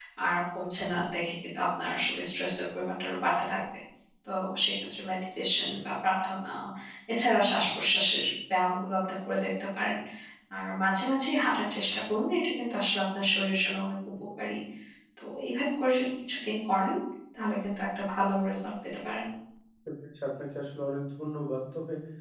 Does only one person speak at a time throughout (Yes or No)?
Yes